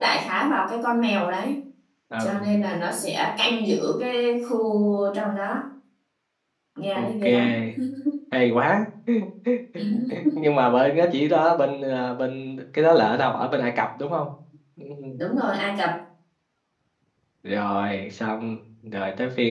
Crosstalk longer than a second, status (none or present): none